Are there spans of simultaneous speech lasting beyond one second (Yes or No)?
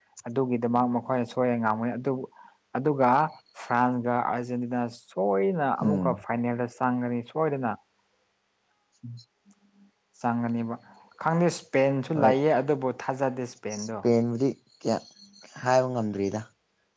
No